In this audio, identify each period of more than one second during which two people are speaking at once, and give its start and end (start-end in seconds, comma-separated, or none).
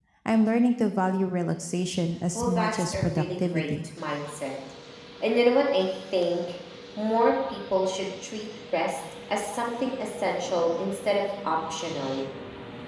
2.4-3.7